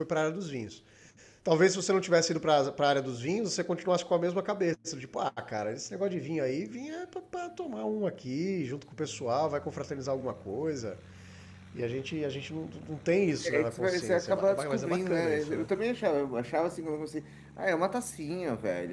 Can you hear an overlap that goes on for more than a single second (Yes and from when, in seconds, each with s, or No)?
Yes, from 13.4 s